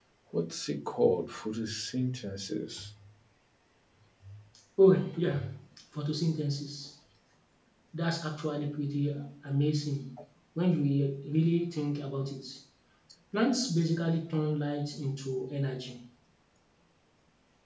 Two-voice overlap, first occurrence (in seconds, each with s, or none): none